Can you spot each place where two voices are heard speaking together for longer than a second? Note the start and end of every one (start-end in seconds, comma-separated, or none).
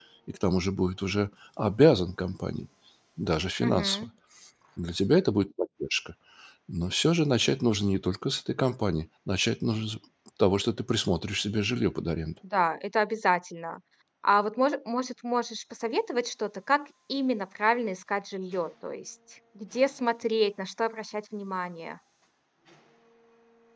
none